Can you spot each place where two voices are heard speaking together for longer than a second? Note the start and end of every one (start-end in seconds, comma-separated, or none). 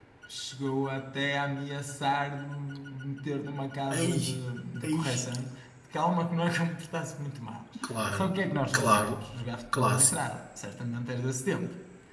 none